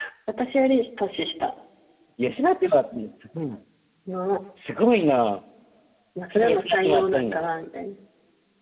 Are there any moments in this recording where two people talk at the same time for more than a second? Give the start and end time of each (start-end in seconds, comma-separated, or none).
6.3-7.5